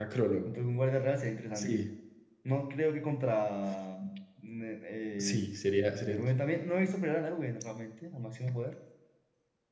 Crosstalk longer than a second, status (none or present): none